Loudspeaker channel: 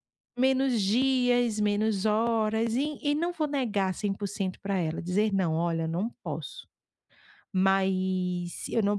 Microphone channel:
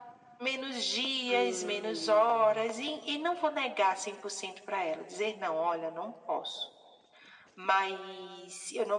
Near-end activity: present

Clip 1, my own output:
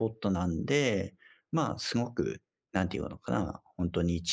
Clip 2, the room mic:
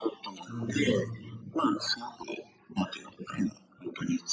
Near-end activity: present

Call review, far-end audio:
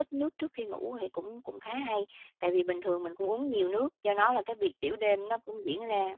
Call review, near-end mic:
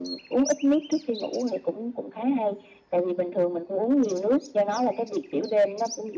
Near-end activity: none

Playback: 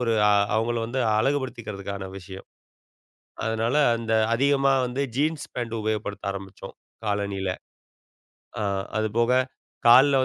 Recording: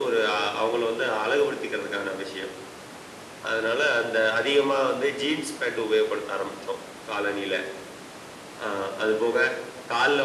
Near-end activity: none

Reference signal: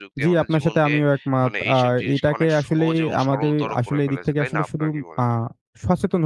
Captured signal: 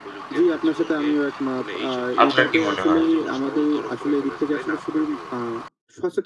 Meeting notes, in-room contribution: present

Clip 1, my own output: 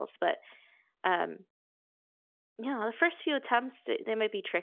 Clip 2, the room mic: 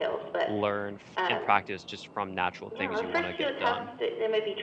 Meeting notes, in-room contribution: present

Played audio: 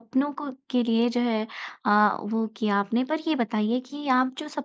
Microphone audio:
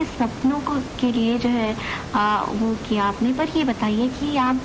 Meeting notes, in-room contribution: none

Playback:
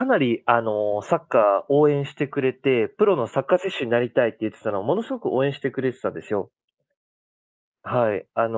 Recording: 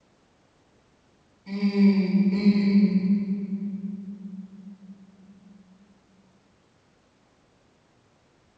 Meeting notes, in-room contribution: present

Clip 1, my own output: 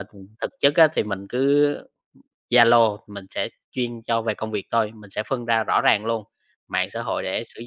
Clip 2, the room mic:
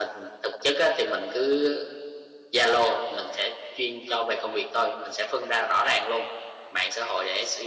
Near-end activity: none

